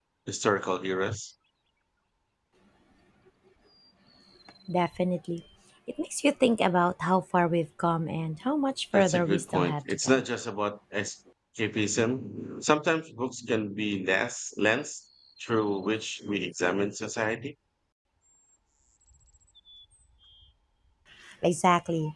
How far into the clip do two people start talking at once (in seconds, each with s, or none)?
8.9 s